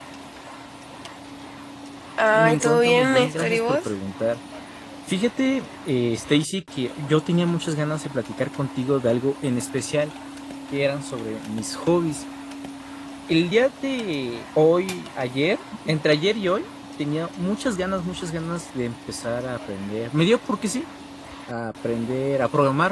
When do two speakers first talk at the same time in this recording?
2.3 s

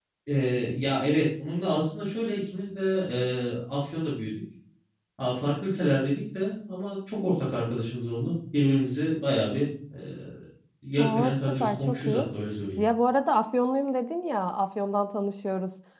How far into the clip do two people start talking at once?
11.0 s

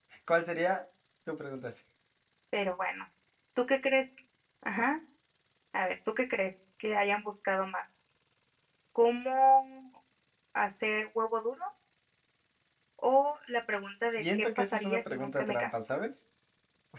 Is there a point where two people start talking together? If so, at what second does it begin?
14.2 s

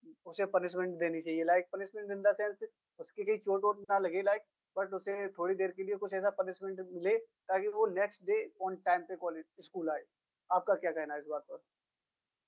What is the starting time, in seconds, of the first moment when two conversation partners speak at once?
none

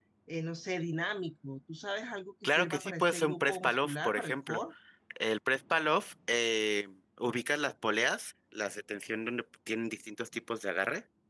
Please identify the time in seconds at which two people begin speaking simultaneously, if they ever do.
2.4 s

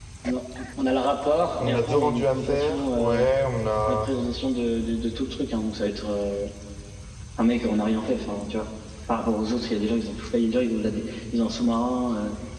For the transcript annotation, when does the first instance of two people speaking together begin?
1.6 s

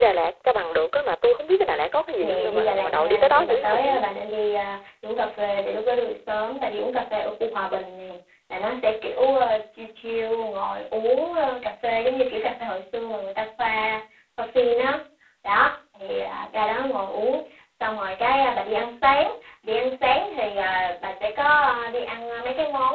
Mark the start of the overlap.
2.2 s

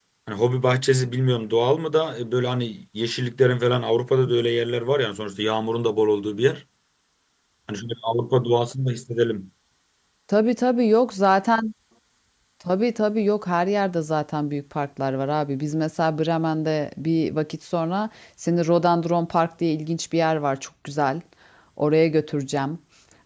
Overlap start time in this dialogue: none

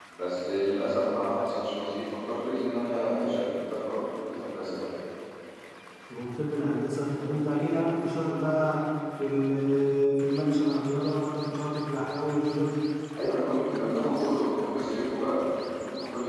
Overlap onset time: none

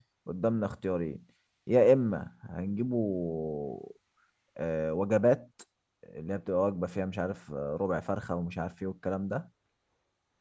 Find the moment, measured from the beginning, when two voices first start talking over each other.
none

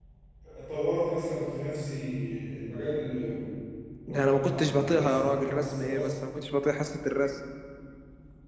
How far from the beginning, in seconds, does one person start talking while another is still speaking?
4.1 s

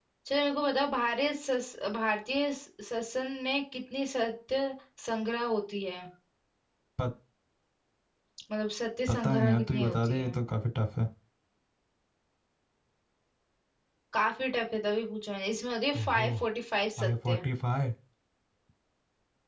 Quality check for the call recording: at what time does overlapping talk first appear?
9.1 s

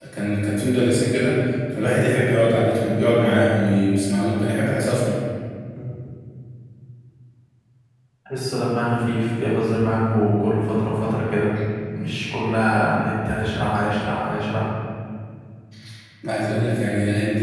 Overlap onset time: none

